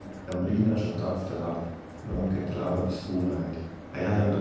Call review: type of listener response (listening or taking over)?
taking over